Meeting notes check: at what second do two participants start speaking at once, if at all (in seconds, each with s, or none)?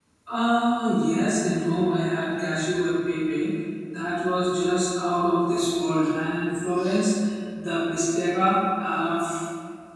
none